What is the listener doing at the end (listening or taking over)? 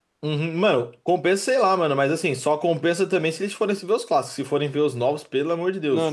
taking over